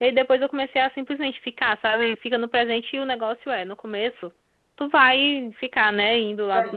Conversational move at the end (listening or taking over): listening